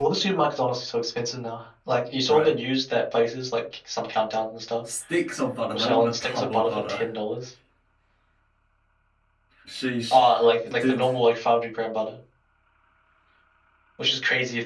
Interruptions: present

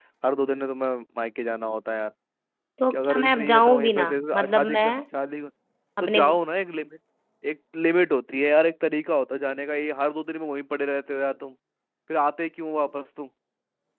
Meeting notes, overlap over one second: present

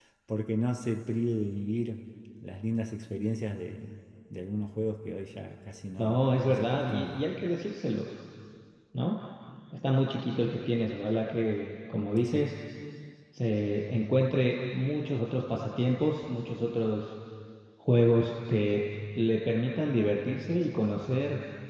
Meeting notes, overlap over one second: present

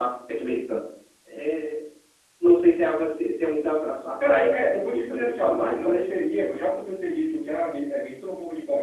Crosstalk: present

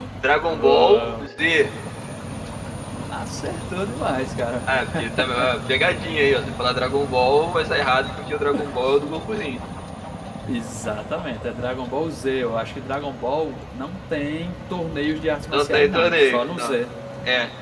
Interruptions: present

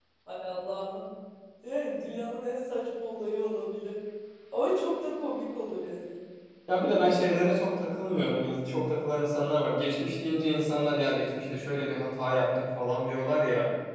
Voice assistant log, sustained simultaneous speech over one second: none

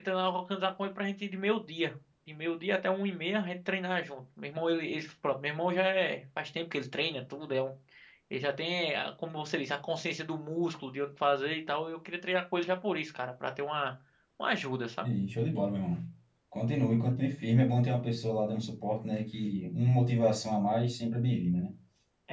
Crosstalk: none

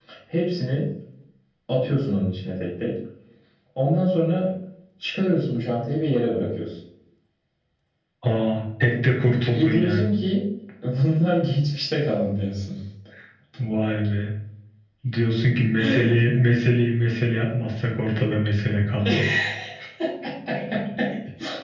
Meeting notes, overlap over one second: none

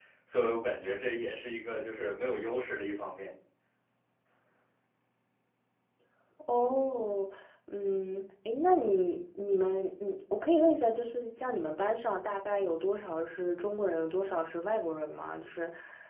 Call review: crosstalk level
none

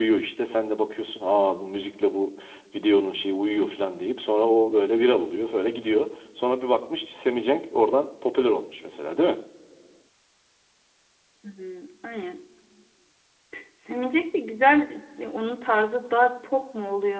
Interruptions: none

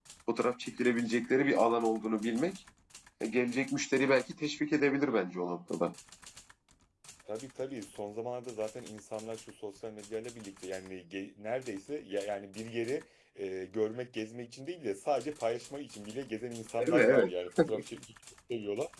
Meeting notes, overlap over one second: none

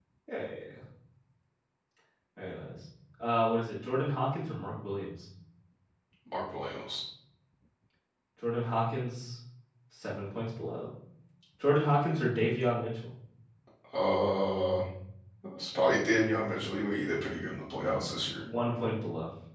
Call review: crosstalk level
none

